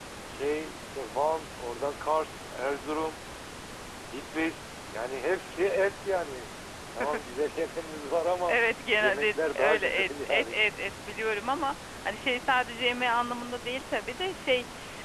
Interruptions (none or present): present